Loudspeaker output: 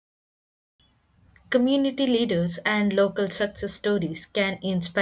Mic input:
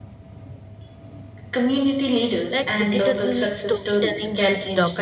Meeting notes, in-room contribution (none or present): present